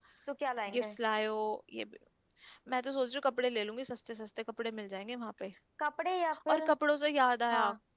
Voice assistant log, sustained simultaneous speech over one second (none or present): none